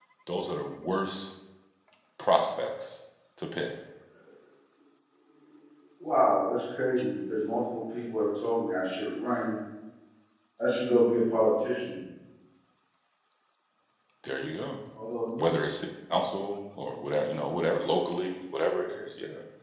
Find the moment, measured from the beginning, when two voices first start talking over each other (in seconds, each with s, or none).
none